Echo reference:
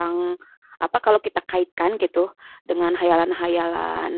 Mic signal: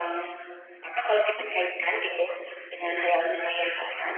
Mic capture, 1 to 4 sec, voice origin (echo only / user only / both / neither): echo only